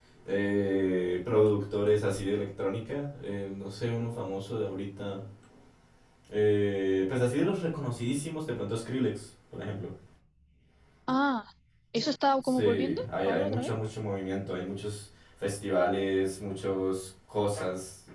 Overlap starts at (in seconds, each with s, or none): 12.4 s